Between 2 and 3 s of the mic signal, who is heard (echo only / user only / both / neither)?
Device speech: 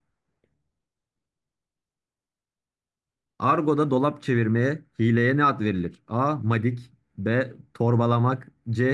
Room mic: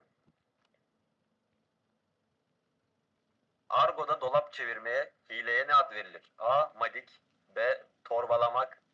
neither